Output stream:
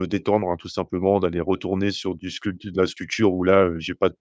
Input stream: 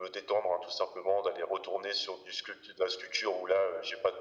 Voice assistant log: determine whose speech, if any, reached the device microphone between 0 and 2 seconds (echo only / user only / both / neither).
echo only